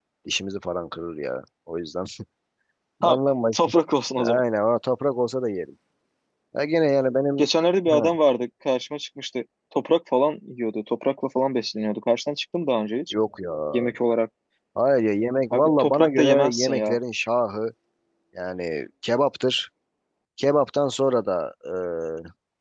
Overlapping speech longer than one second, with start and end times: 15.5-17.0

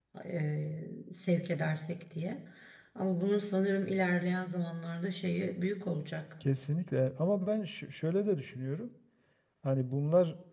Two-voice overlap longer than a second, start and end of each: none

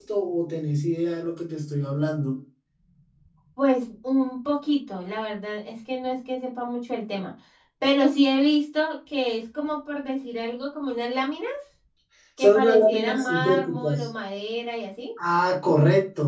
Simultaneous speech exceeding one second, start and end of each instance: 12.4-14.1

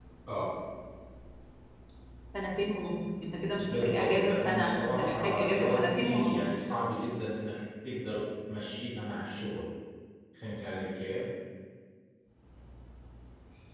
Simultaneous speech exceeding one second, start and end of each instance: 3.6-6.5

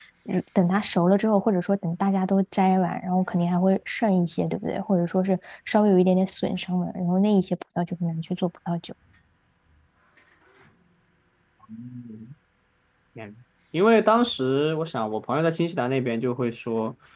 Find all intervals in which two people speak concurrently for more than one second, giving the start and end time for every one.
none

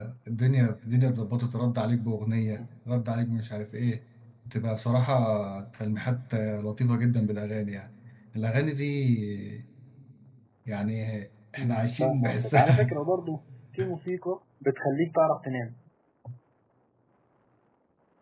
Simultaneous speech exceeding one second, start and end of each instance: 11.6-12.9

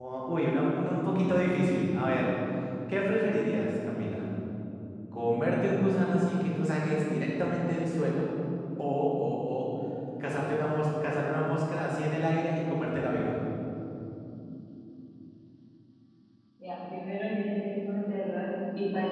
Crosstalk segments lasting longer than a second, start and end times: none

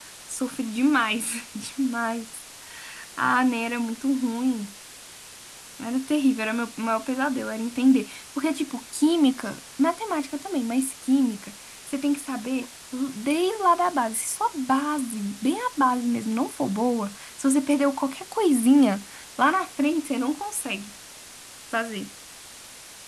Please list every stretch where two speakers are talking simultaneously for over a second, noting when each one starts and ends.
none

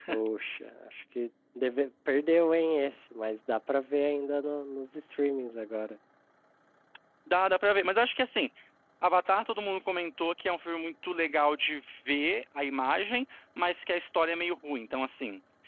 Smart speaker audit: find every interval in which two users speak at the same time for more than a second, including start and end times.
none

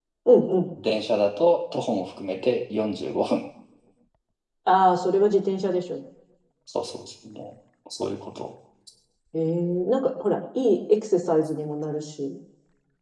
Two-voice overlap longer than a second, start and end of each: none

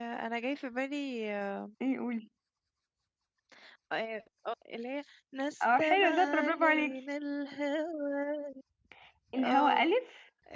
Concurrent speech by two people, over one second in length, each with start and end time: 5.6-6.9

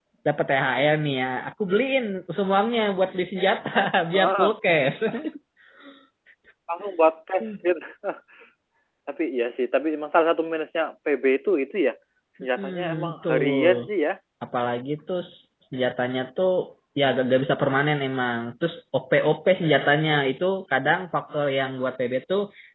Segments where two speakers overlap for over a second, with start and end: 12.6-13.9

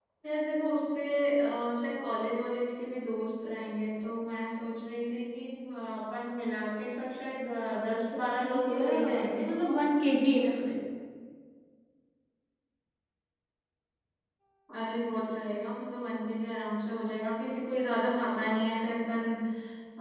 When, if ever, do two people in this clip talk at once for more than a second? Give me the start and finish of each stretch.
7.7-9.5

